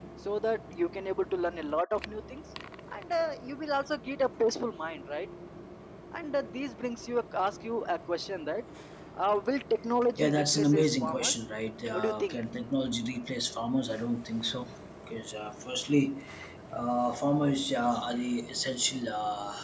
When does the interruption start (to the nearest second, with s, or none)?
10 s